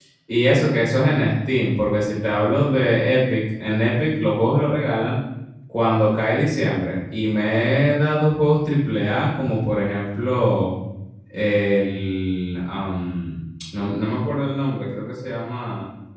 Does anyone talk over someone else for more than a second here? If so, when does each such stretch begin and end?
none

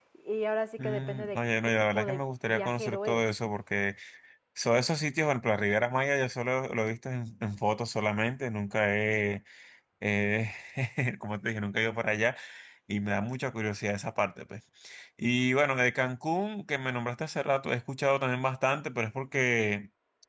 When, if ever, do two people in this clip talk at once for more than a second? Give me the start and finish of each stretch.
0.8-3.2

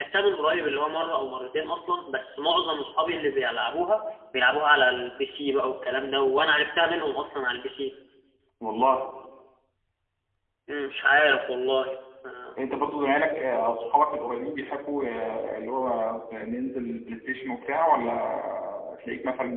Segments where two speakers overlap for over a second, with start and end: none

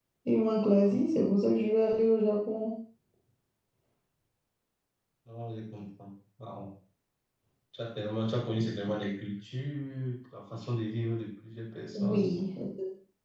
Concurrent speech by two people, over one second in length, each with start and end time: none

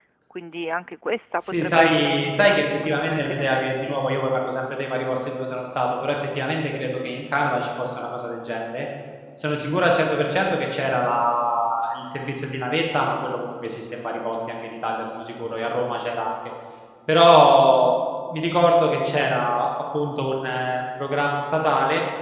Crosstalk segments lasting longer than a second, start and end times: 1.6-4.0

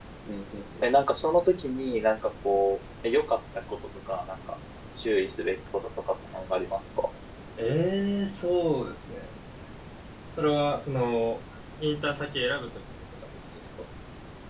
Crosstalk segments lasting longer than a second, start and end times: none

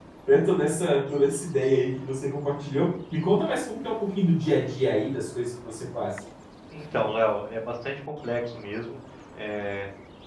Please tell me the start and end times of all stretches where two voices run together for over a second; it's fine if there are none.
none

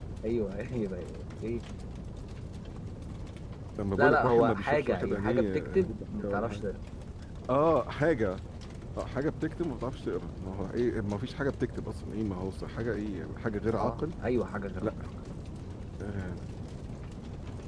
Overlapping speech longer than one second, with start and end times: 4.0-6.6

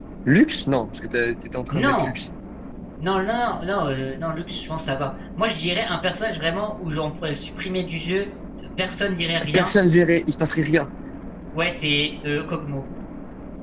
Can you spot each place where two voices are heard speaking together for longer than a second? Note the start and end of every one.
none

